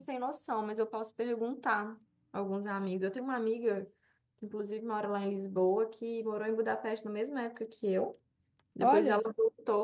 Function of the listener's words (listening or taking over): listening